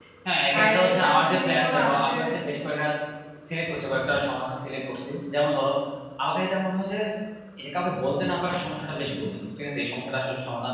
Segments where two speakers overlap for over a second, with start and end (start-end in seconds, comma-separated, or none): 0.6-2.2